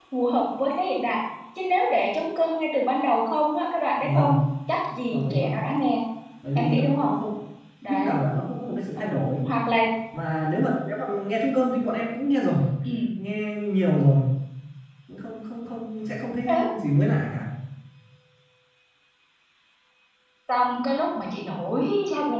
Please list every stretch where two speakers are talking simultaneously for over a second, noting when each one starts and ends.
none

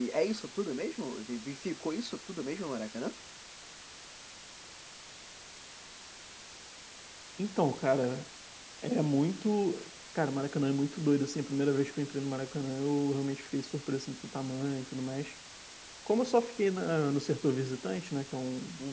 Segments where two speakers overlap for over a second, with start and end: none

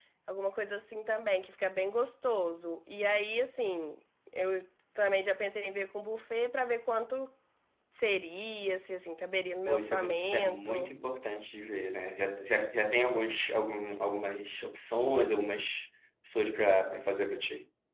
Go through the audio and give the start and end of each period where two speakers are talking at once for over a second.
9.7-10.9

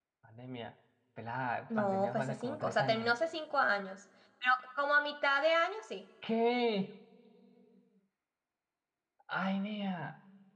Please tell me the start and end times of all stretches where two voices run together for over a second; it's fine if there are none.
1.8-3.1

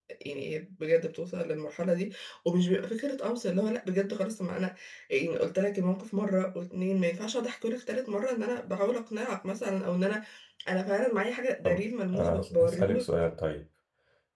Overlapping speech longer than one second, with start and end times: 11.6-13.0

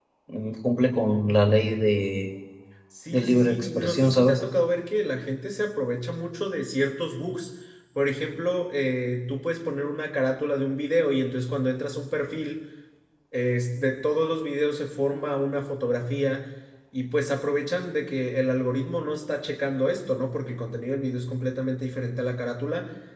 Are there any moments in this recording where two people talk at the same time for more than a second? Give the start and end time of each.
3.1-4.4

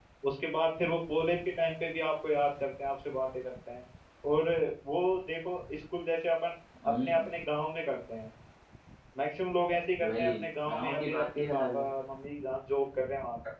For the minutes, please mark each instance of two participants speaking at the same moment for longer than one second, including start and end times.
10.0-11.8

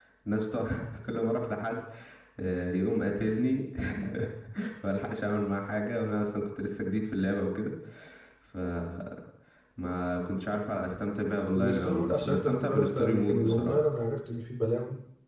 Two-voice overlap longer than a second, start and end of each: 11.6-13.8

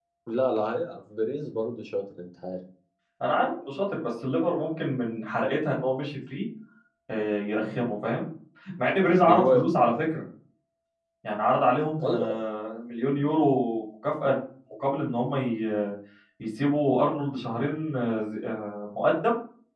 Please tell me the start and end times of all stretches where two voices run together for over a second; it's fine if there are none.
none

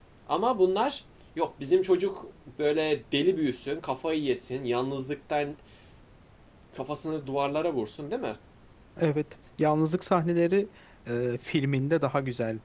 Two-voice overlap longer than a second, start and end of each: none

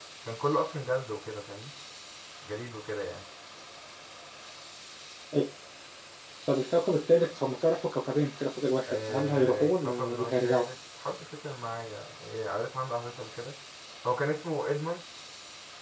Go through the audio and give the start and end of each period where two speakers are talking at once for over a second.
8.9-10.7

